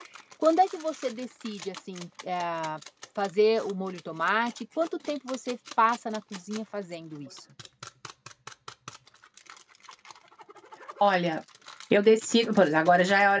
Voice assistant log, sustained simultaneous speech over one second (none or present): none